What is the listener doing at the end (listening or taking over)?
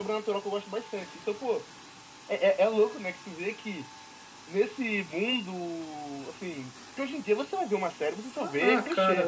taking over